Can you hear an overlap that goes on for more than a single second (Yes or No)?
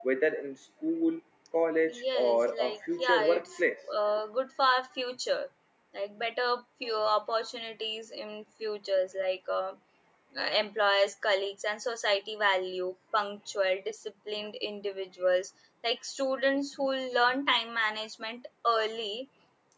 Yes